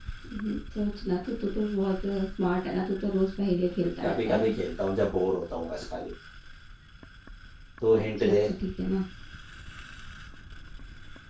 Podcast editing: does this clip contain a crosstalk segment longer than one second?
No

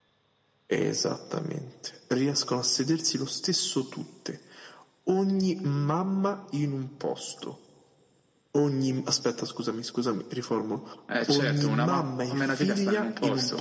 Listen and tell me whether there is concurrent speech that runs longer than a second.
Yes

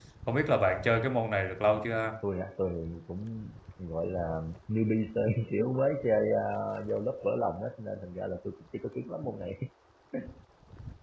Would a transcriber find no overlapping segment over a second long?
Yes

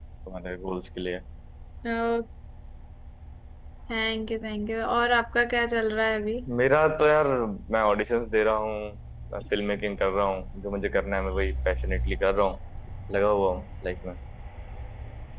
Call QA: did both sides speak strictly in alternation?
Yes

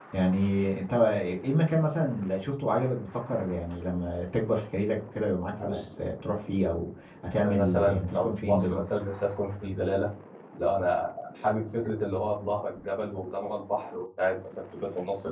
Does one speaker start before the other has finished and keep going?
Yes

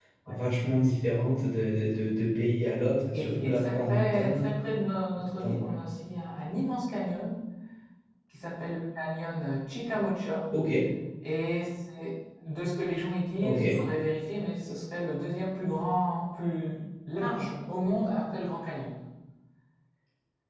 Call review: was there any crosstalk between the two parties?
Yes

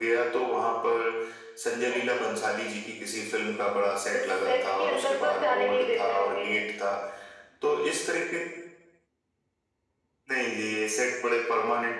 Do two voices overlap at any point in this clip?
Yes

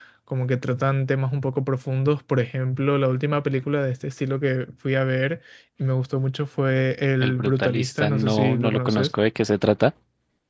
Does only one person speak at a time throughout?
No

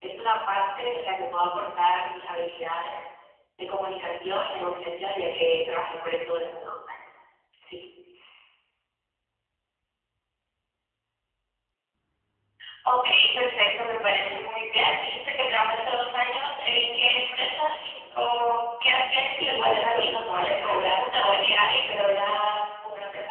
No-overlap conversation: No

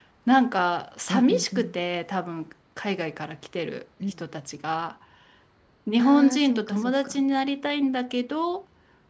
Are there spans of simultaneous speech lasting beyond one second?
Yes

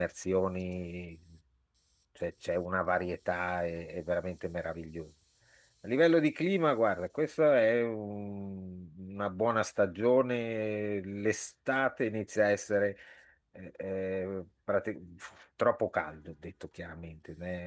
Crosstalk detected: No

